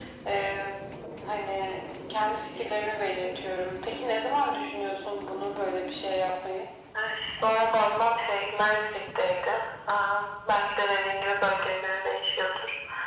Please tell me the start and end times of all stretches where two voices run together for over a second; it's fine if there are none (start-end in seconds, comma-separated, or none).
none